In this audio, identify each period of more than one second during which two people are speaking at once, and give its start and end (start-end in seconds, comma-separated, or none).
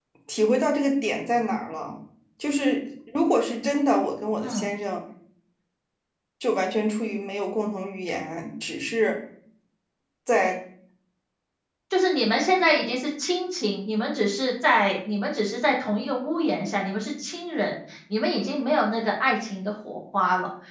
none